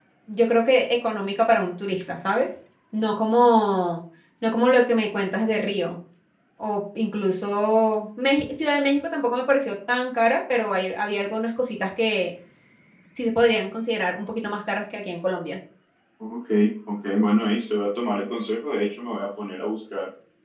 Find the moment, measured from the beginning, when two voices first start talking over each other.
none

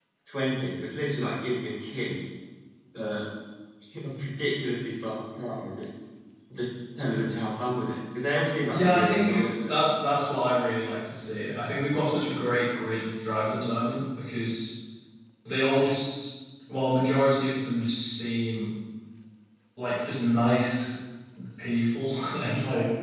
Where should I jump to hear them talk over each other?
8.7 s

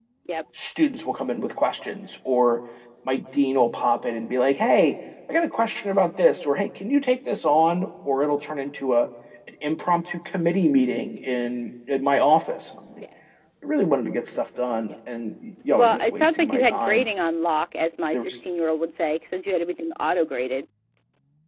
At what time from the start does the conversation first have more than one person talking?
15.7 s

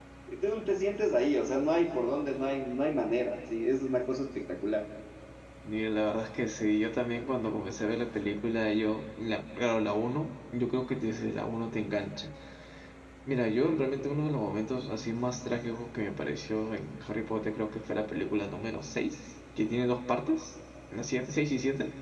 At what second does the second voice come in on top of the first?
none

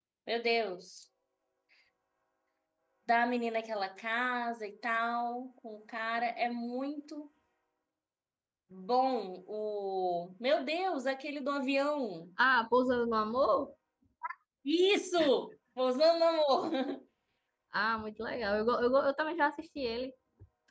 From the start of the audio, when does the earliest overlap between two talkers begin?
none

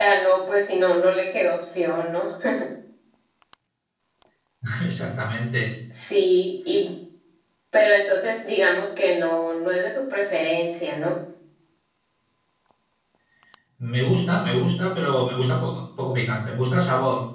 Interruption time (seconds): none

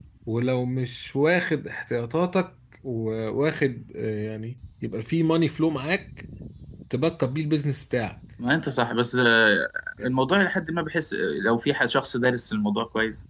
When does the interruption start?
none

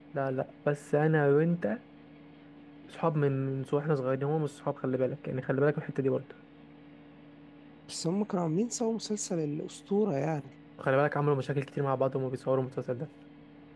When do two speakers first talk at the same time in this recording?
none

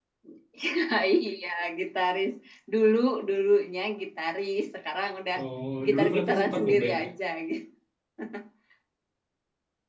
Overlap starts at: 5.8 s

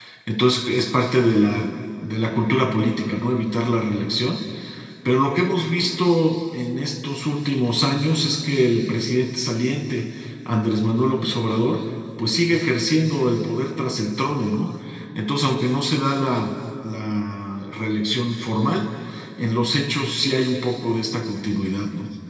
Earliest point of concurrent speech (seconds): none

